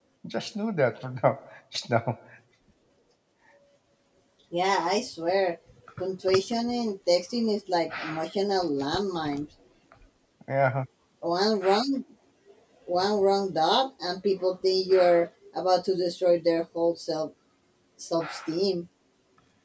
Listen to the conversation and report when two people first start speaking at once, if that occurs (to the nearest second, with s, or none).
none